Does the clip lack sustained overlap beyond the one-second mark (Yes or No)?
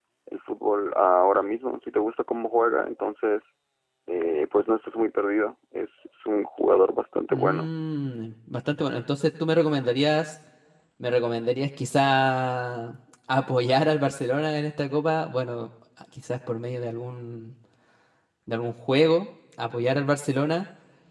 Yes